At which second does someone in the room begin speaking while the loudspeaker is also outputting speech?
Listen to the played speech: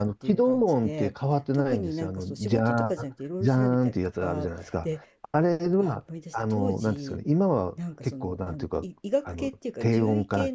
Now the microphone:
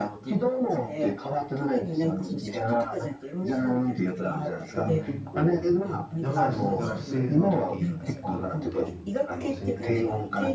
5 s

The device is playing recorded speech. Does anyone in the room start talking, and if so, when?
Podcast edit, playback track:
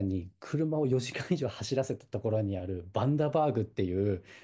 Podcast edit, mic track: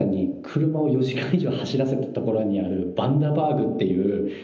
none

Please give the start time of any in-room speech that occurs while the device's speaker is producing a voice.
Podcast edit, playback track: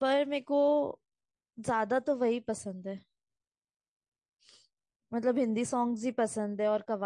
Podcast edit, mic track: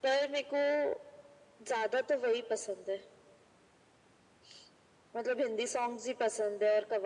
none

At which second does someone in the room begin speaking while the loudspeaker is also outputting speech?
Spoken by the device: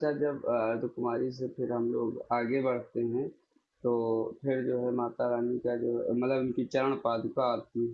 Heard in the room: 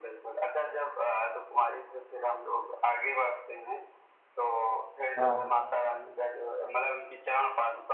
5 s

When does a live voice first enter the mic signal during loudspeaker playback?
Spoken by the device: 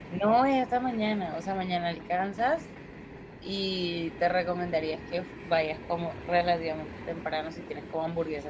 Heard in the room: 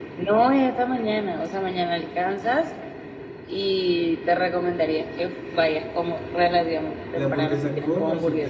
7 s

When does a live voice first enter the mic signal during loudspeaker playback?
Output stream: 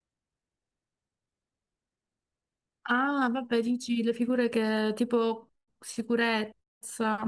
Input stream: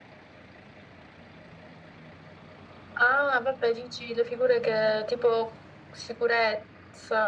none

